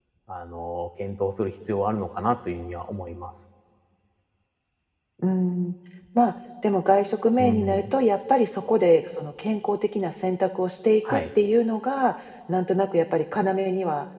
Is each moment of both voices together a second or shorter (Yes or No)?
Yes